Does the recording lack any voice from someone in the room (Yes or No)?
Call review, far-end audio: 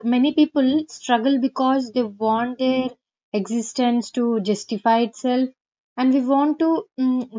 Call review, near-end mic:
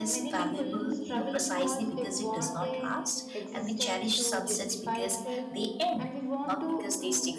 No